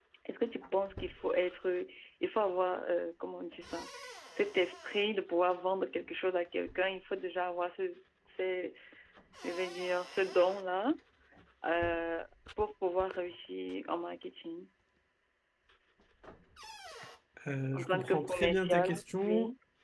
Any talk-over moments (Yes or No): Yes